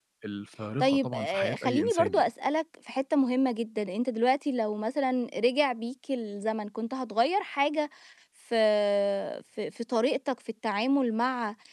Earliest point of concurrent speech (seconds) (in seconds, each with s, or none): 0.8 s